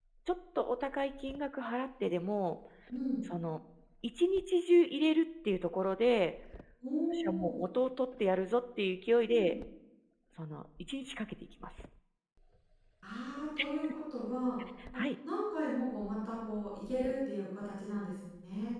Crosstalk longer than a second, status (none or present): none